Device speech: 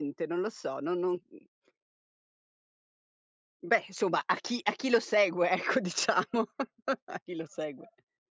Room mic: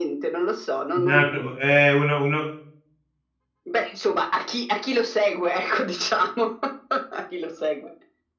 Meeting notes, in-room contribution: present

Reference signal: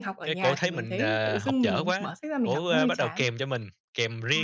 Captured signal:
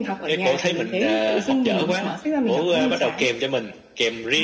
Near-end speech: none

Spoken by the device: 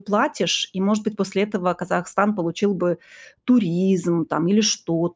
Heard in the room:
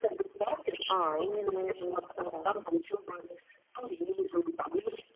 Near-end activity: present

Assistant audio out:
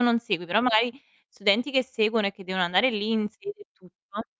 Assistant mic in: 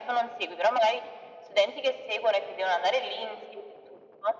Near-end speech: none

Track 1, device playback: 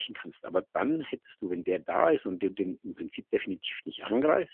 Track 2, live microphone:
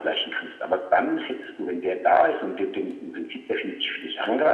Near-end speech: none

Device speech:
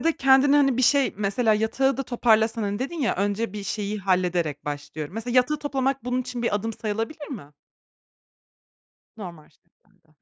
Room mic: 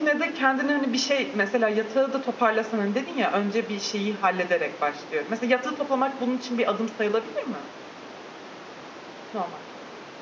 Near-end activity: none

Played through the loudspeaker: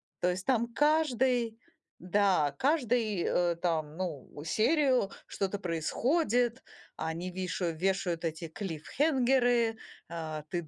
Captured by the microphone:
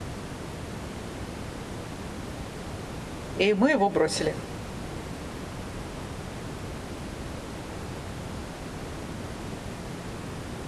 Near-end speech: present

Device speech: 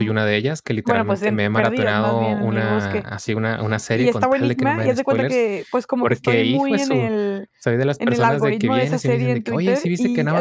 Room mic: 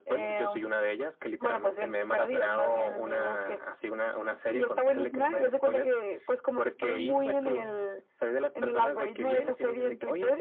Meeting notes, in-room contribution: present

